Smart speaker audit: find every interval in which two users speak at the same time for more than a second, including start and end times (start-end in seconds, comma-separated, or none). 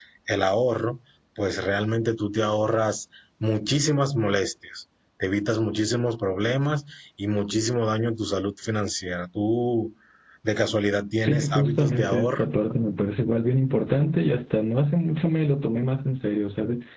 11.2-12.5